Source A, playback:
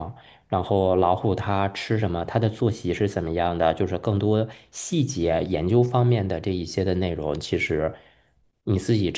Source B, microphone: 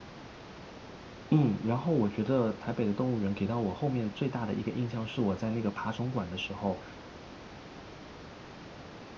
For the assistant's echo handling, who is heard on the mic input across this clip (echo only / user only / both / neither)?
user only